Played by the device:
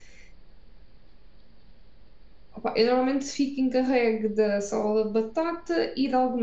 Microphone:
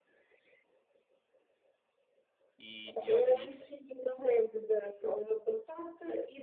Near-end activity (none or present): present